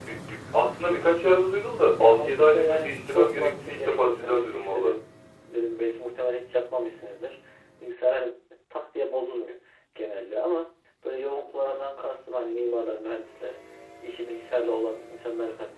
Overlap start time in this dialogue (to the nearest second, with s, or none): 2 s